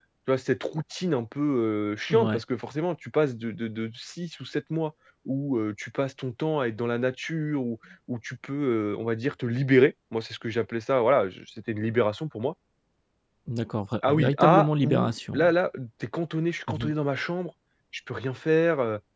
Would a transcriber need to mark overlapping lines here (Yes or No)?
Yes